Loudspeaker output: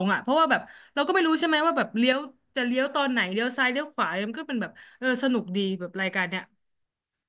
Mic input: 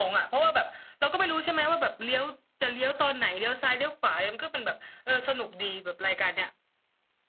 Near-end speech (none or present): none